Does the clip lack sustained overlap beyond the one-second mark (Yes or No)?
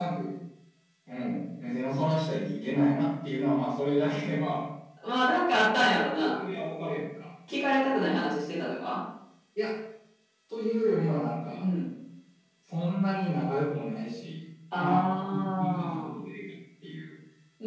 No